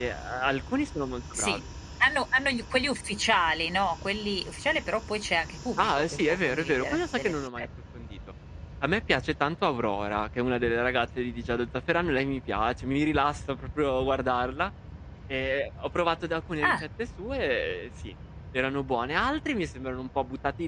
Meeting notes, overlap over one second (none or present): present